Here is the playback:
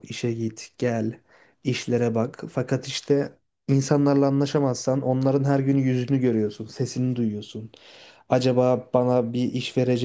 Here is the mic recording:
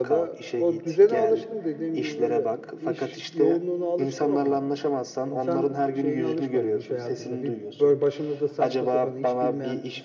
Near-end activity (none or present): present